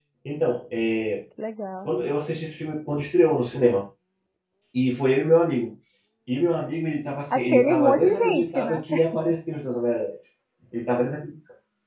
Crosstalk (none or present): present